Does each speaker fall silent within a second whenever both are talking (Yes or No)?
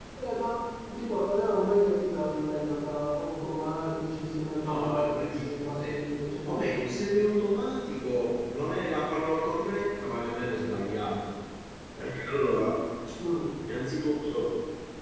No